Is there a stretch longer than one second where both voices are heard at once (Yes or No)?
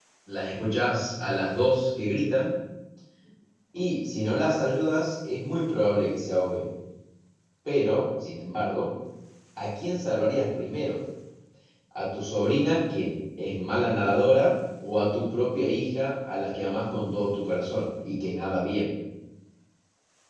No